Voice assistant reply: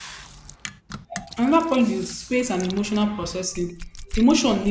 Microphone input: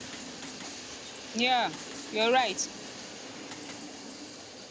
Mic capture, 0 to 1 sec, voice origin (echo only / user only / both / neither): neither